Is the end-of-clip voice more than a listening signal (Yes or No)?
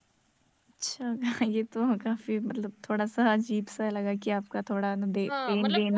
Yes